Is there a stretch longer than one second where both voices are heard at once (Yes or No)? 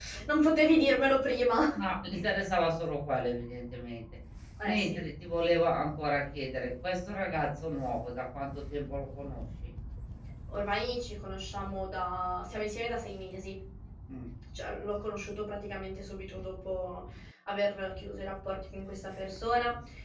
No